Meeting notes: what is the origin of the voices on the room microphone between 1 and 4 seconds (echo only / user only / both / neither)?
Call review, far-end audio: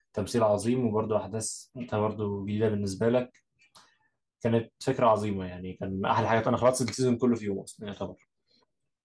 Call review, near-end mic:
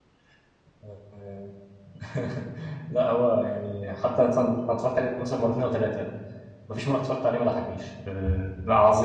user only